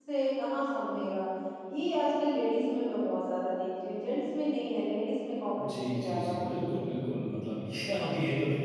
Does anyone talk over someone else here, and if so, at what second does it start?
5.6 s

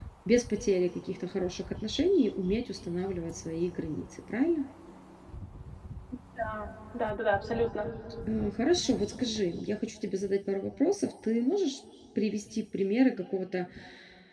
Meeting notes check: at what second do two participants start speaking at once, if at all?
none

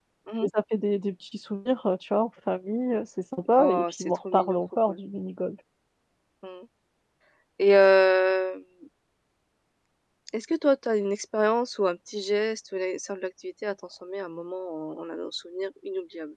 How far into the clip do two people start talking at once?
3.5 s

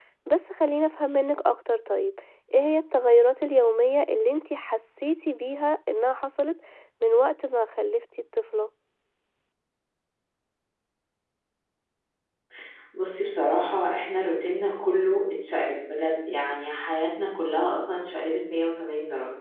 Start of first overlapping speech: none

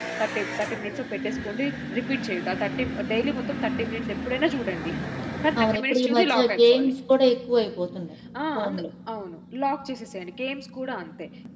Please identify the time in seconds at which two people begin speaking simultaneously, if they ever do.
5.6 s

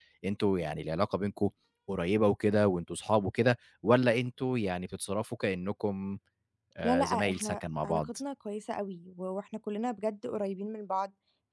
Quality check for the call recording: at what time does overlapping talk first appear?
6.8 s

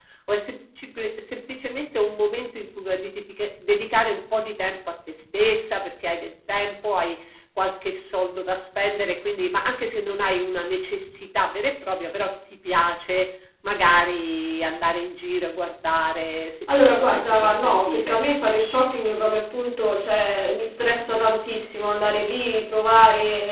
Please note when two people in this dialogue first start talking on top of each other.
16.7 s

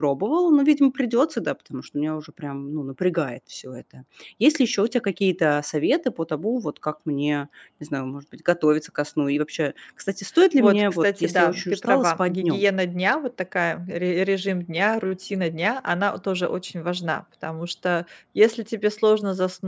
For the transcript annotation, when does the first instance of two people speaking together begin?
10.6 s

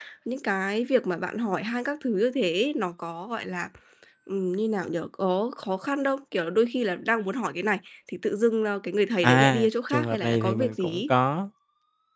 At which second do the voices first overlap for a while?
9.2 s

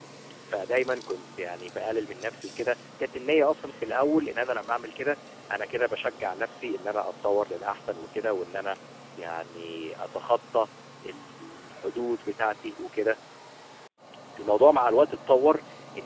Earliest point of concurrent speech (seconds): none

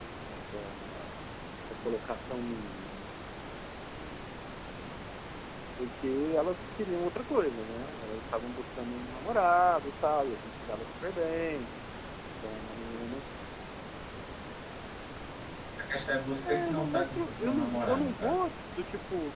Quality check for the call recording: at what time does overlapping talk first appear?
16.4 s

